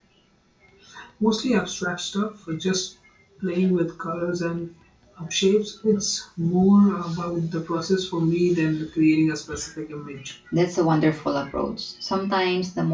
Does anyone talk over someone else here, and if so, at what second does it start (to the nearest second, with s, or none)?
none